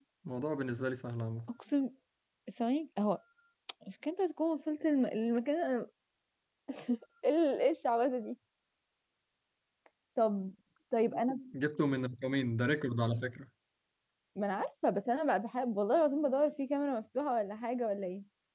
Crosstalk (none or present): none